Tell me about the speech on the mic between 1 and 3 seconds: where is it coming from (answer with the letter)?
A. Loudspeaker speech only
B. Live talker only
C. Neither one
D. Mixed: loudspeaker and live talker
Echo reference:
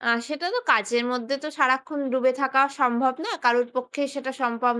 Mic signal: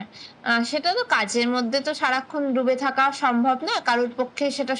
A